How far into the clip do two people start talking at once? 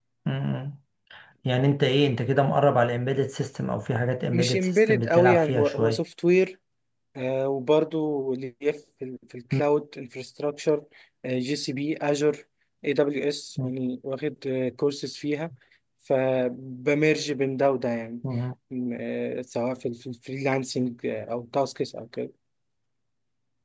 4.3 s

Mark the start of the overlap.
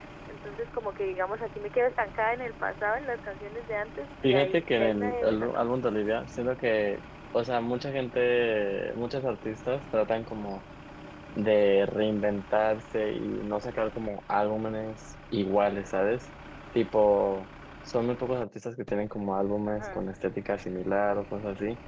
4.2 s

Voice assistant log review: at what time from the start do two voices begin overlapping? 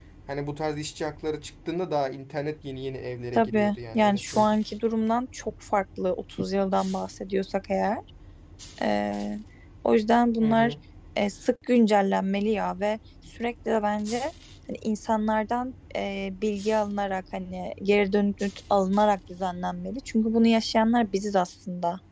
3.3 s

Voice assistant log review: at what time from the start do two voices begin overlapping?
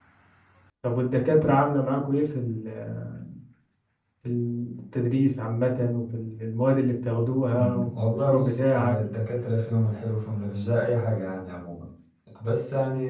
7.5 s

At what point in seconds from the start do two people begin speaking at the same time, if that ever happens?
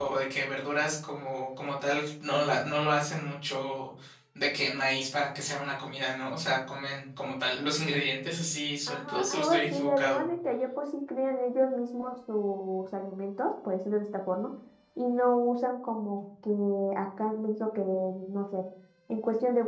8.9 s

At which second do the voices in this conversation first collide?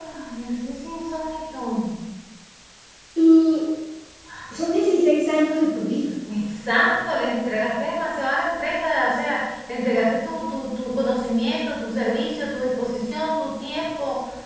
none

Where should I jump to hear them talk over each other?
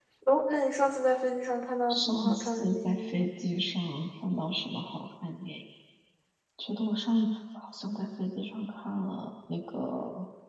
1.9 s

